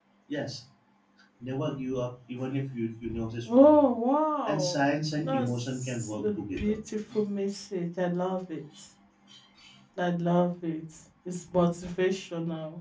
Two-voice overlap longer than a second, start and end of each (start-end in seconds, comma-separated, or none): 5.3-6.8